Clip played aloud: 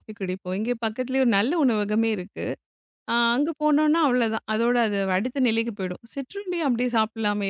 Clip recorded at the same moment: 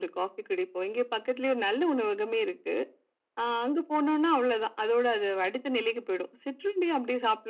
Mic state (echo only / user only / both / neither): echo only